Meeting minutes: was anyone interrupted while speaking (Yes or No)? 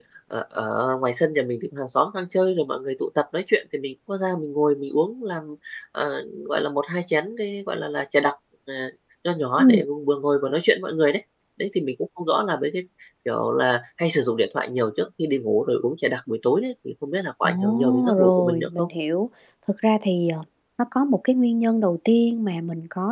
Yes